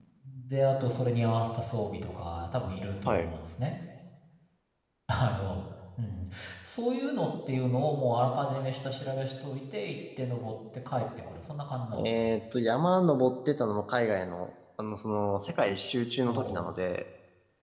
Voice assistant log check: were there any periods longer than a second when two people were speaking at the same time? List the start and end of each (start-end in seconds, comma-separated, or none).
none